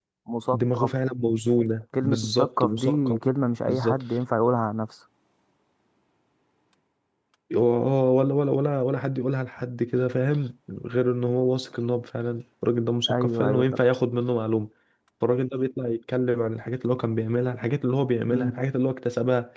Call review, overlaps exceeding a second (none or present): present